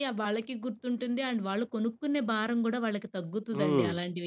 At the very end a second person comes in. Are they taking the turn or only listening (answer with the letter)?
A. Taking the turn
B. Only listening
A